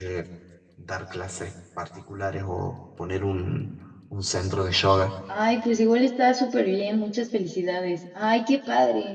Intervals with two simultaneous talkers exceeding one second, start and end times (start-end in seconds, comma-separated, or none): none